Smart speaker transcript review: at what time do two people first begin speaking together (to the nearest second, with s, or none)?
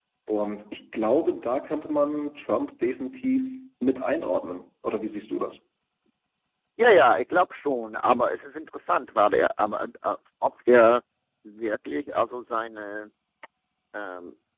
none